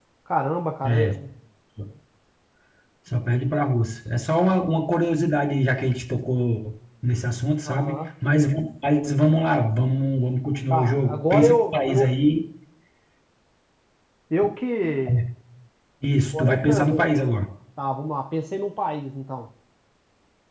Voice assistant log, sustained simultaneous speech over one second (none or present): present